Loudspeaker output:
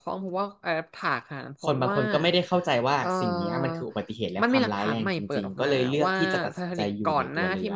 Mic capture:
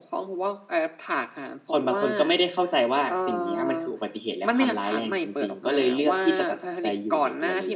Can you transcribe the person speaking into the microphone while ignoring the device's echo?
none

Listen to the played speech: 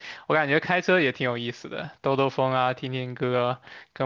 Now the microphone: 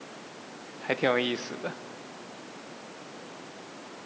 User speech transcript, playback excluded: 还挺有意思的。

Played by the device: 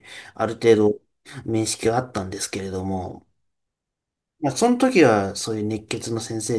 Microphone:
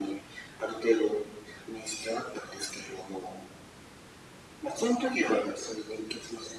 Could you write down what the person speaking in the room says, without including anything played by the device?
none

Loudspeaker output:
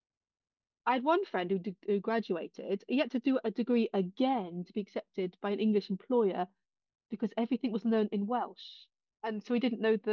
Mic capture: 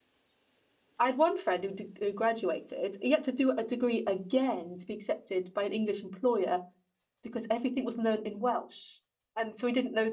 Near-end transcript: none

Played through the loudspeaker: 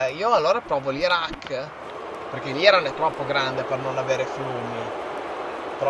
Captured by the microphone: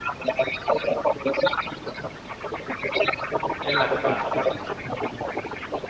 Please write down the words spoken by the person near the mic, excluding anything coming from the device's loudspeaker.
È l'Antartide.

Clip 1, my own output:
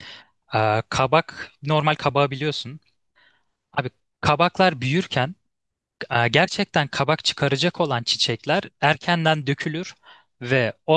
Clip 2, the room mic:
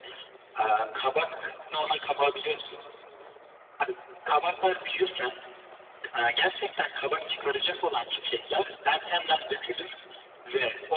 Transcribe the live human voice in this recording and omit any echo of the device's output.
none

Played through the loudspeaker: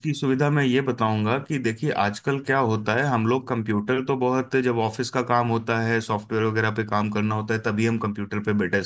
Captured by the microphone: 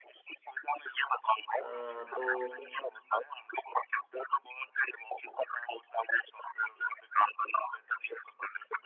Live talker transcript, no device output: अ, तो

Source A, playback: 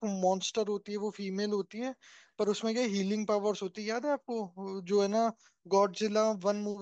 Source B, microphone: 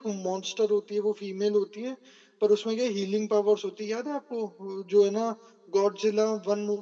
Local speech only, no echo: none

